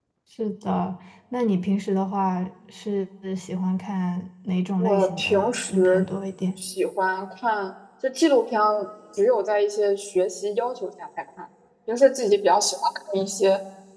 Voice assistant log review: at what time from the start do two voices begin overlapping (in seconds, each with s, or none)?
4.8 s